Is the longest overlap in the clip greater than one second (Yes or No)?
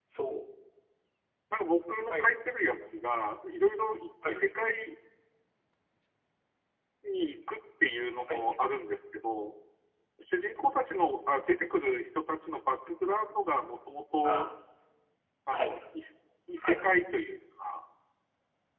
No